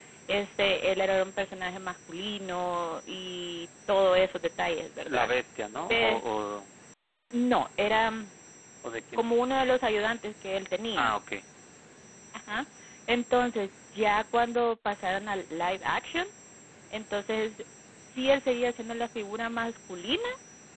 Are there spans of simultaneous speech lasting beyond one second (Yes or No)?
No